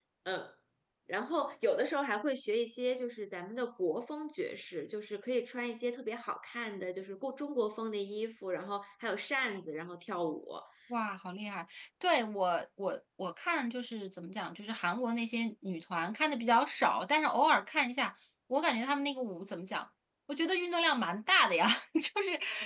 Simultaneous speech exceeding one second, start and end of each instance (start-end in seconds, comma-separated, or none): none